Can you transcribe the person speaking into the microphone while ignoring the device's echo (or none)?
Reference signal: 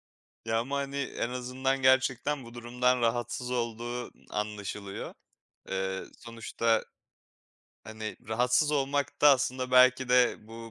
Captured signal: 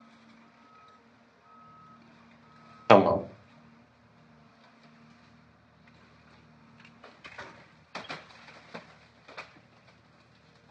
Tamam.